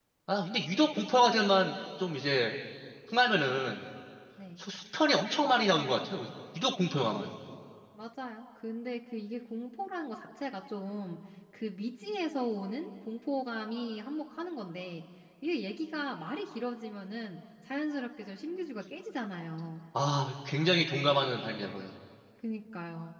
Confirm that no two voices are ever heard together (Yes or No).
Yes